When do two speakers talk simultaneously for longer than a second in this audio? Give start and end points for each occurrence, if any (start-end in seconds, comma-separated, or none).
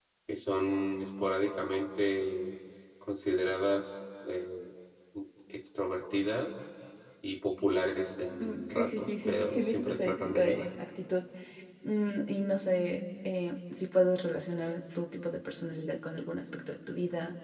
8.4-10.7